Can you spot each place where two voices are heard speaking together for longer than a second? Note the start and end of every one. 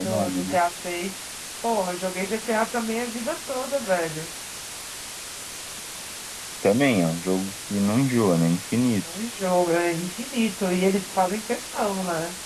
none

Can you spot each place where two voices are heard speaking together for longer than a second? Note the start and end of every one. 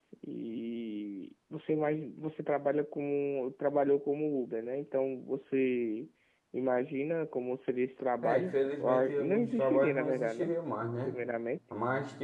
8.2-10.5

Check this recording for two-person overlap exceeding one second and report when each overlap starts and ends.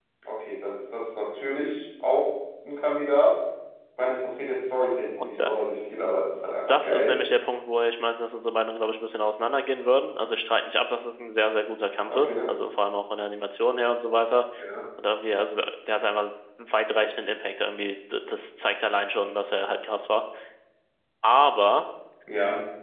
none

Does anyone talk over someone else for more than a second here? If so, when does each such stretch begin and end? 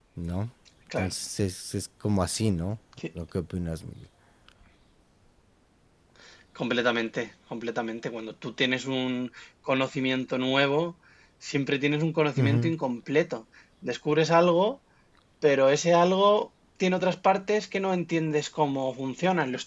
none

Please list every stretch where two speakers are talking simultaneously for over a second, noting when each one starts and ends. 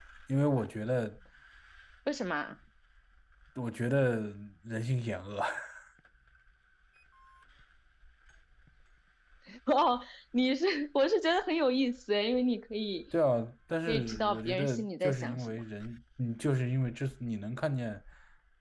13.9-15.6

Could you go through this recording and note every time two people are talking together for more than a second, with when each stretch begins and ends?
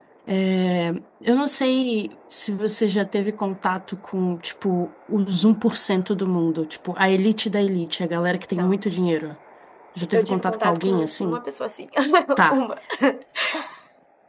10.1-11.4

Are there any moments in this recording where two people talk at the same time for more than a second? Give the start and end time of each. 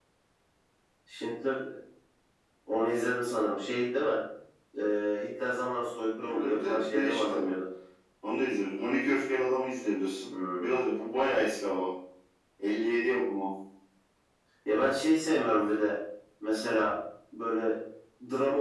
6.2-7.5

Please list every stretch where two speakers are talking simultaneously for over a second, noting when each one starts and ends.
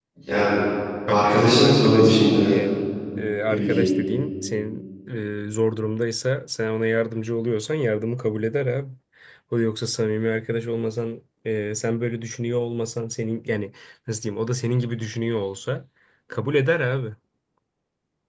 1.1-2.5

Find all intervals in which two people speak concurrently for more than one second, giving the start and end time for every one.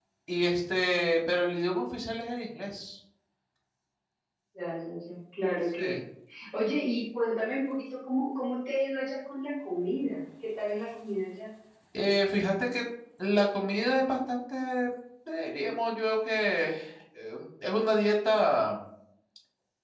none

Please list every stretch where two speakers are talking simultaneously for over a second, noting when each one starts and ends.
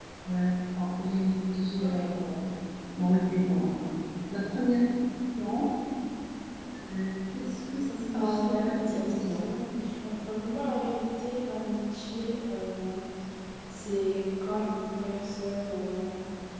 8.2-9.4

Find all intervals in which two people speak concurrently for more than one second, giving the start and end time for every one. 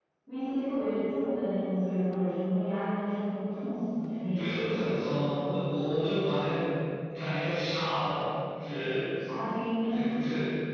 none

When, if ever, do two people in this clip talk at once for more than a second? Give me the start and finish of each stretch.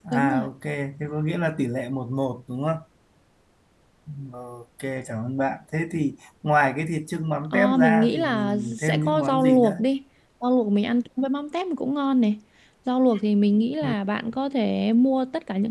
7.5-9.8

